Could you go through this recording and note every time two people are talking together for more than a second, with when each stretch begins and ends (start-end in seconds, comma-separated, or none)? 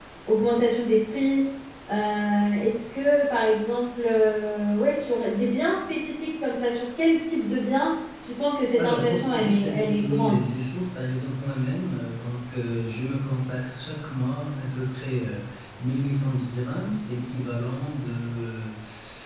8.8-10.4